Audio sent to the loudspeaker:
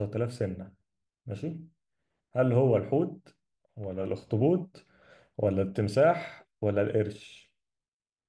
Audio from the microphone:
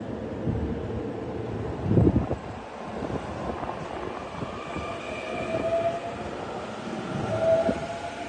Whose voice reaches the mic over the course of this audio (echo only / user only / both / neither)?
neither